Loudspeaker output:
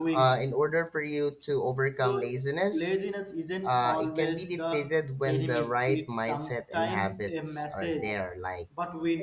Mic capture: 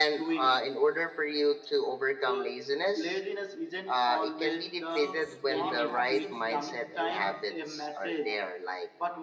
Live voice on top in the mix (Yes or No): No